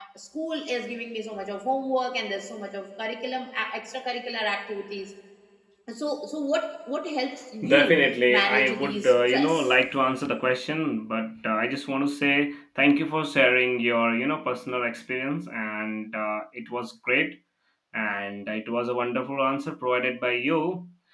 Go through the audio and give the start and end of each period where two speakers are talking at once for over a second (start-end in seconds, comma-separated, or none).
8.4-9.6